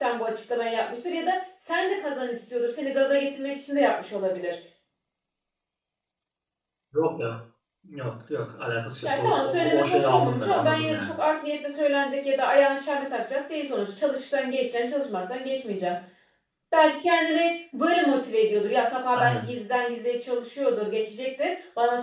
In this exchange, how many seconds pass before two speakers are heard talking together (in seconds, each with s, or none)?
9.0 s